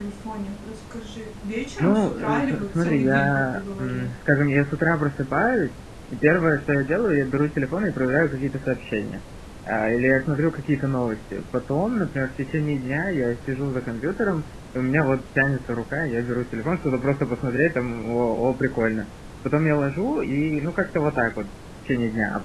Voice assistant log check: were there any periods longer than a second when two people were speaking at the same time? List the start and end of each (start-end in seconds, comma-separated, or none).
1.8-4.1